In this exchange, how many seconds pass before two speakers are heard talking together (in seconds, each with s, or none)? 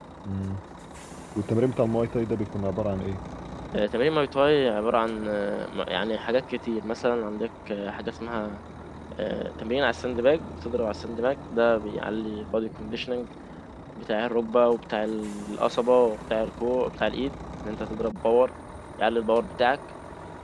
none